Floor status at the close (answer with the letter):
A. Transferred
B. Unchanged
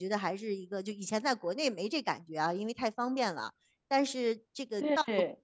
B